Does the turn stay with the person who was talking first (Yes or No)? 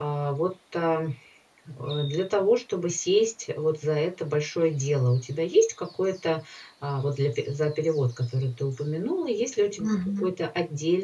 Yes